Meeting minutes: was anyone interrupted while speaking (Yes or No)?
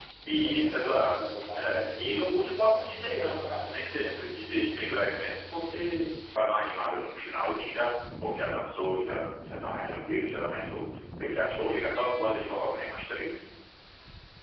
Yes